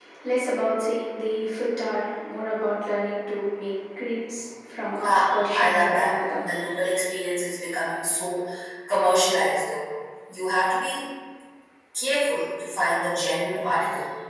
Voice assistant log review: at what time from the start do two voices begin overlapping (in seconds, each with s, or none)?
5.0 s